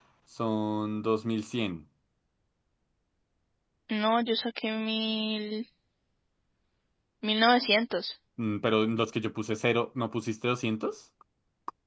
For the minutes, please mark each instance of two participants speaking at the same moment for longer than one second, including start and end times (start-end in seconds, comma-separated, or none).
none